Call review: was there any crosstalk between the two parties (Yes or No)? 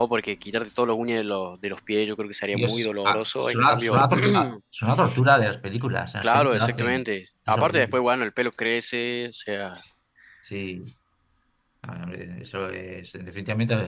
Yes